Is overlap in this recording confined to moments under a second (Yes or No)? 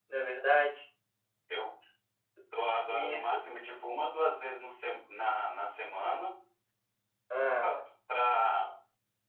Yes